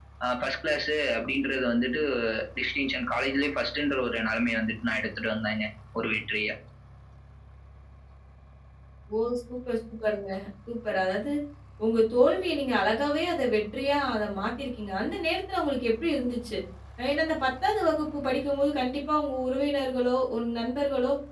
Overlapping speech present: No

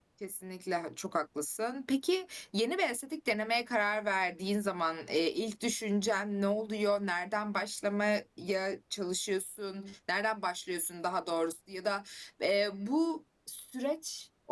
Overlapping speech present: No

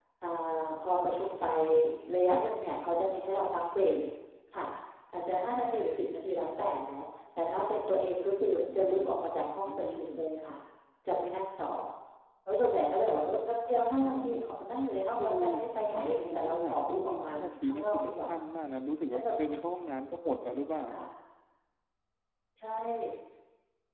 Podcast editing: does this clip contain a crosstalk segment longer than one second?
Yes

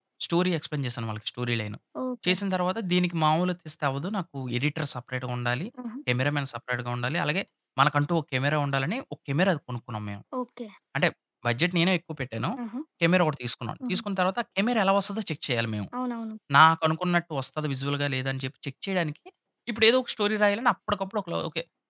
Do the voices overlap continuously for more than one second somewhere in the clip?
No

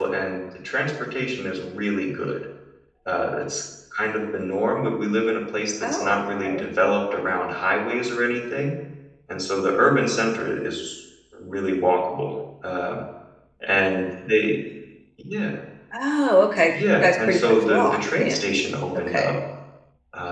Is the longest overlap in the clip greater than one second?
Yes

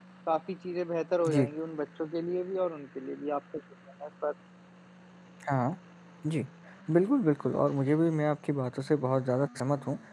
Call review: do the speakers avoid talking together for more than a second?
Yes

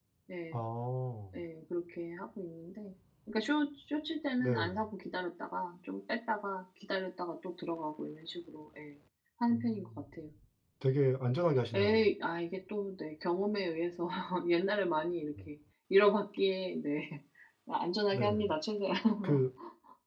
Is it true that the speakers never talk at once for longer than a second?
Yes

